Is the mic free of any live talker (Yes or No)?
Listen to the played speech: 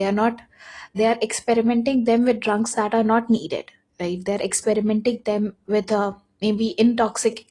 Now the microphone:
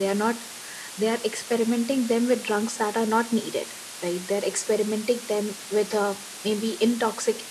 Yes